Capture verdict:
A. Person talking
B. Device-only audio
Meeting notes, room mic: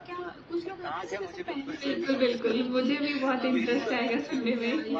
A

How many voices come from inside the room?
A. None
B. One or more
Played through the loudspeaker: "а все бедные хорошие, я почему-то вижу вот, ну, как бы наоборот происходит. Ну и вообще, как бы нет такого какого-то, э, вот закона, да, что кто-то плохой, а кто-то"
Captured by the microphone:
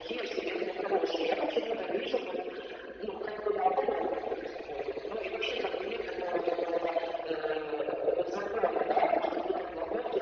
A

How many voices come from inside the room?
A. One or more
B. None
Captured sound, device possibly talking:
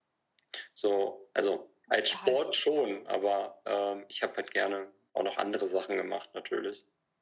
A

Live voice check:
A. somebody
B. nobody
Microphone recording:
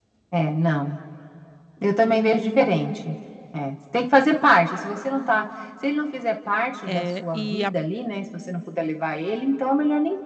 A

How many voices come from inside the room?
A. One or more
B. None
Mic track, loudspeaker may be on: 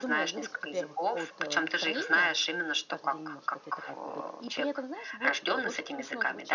A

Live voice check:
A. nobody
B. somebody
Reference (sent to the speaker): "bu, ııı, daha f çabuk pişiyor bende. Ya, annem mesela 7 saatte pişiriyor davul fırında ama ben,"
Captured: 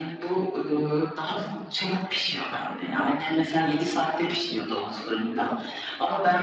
A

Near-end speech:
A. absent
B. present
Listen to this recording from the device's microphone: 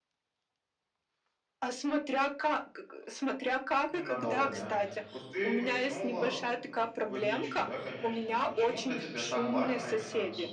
B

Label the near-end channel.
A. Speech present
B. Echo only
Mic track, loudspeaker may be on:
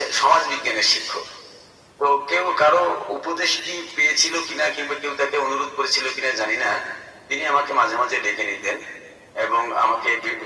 B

